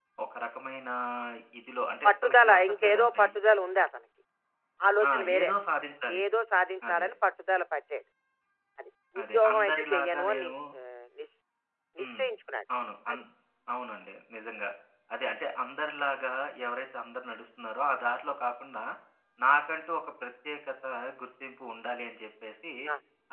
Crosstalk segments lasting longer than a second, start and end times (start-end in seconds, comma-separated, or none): 2.0-3.4, 9.2-10.5